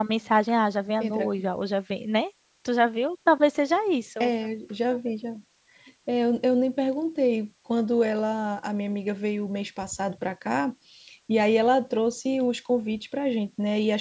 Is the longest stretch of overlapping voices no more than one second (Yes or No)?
Yes